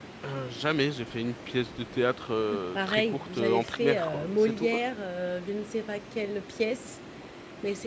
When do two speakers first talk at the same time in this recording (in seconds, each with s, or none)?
2.5 s